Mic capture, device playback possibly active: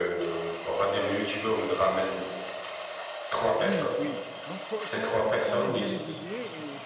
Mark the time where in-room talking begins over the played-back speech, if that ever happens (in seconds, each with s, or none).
3.6 s